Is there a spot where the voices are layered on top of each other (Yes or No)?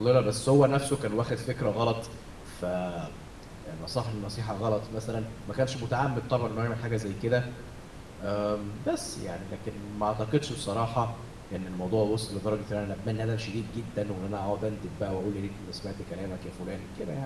No